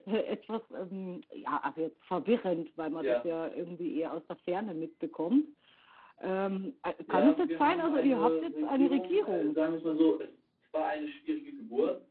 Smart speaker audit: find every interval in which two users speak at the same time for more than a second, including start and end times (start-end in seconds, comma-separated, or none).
7.1-9.6